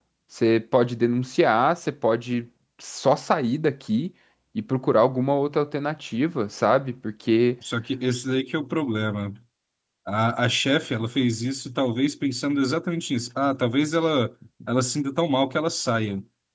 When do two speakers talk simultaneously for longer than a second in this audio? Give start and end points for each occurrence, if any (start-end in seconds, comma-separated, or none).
none